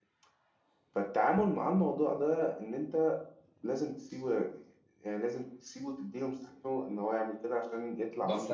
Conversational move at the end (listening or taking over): taking over